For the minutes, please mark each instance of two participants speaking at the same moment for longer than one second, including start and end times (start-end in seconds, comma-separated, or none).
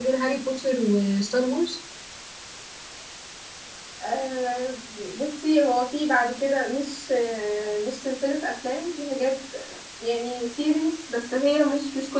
none